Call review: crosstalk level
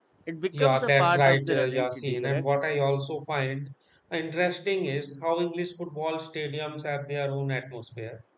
present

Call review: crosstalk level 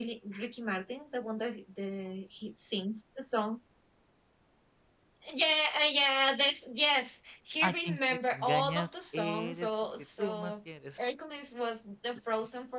present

